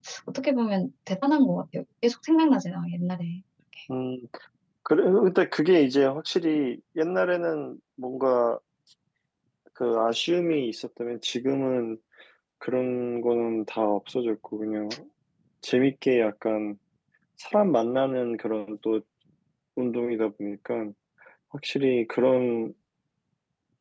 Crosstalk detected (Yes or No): No